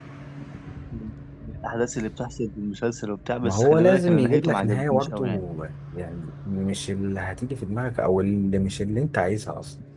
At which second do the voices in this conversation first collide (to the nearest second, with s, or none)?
3 s